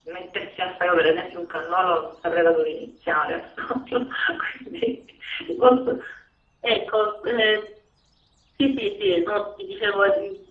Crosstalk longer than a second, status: none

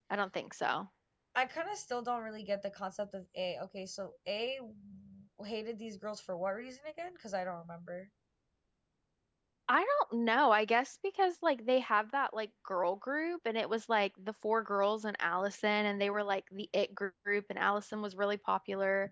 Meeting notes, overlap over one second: none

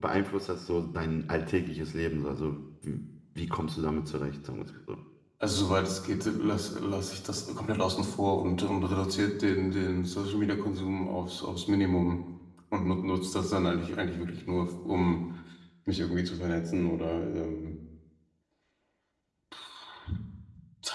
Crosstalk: none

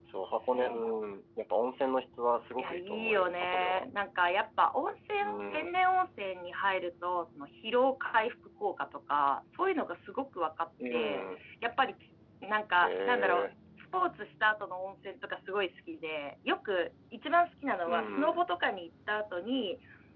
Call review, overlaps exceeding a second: present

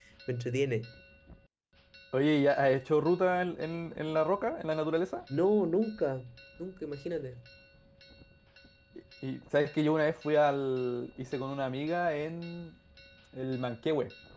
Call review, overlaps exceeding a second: none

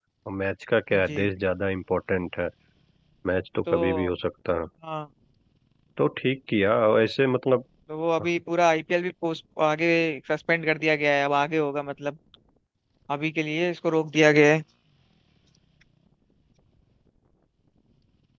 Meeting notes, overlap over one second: none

